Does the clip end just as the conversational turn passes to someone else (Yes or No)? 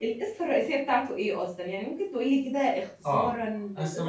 Yes